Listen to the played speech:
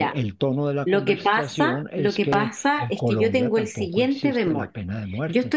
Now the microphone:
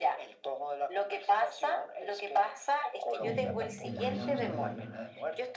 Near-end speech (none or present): present